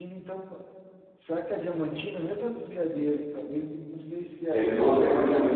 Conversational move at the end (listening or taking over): taking over